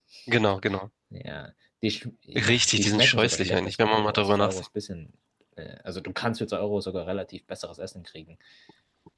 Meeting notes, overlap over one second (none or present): present